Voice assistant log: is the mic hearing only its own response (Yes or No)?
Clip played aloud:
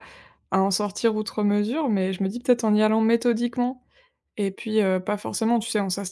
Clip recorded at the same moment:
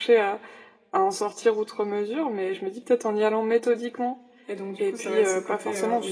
No